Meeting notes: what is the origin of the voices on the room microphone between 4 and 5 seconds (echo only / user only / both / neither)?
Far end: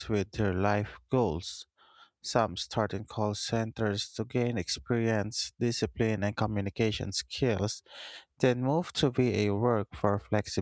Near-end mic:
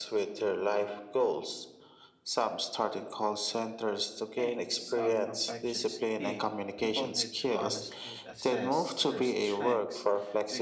both